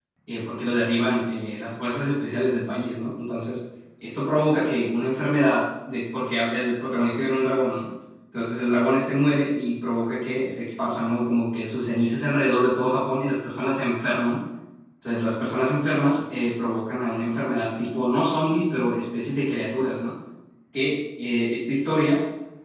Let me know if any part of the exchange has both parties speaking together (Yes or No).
No